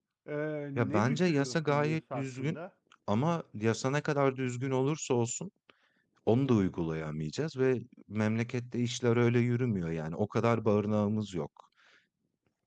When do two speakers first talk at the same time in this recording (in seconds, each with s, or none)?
0.8 s